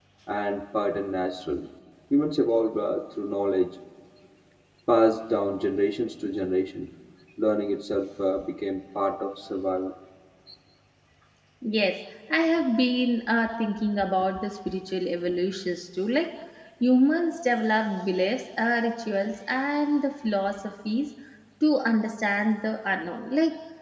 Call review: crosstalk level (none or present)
none